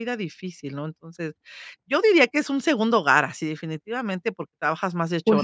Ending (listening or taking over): taking over